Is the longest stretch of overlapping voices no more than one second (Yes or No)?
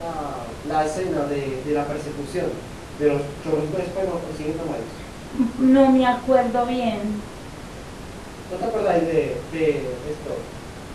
Yes